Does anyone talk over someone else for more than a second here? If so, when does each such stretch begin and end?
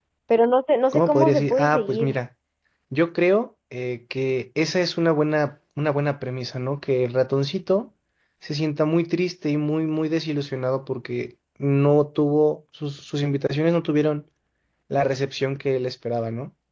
0.9-2.2

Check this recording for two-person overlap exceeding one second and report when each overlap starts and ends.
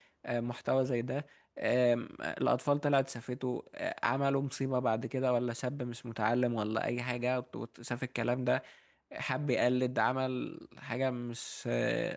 none

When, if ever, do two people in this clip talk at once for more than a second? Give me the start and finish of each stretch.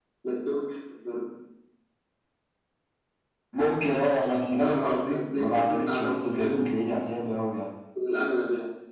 4.6-6.6

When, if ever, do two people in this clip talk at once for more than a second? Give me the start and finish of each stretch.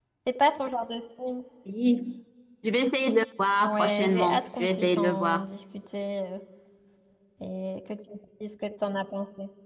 3.6-5.4

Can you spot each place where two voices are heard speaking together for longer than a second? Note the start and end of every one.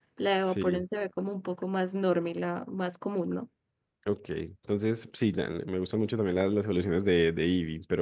none

